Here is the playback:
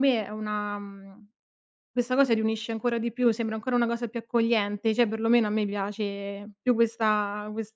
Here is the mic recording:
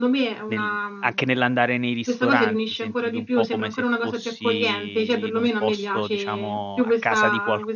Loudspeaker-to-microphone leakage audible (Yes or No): Yes